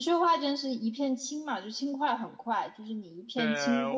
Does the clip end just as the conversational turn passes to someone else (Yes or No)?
Yes